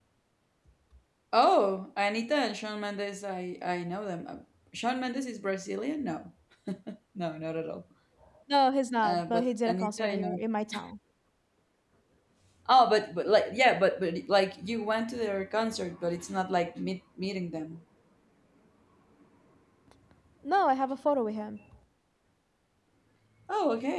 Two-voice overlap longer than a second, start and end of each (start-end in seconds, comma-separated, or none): 9.0-10.4